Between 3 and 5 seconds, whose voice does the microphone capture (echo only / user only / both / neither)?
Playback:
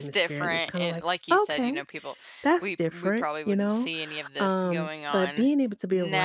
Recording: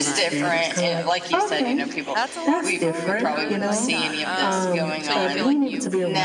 both